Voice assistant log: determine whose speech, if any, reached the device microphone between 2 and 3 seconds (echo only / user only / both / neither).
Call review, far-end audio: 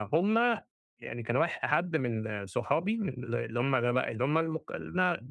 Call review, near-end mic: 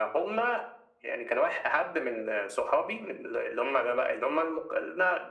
echo only